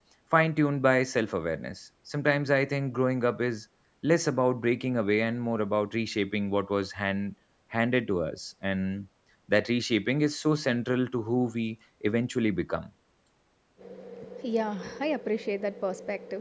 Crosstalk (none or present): none